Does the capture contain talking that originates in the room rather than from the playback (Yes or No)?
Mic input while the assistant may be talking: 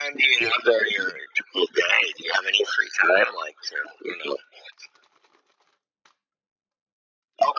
No